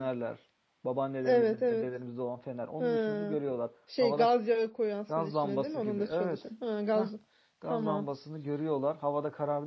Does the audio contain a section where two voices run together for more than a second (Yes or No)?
Yes